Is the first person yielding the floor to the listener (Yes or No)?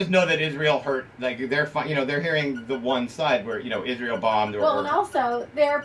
Yes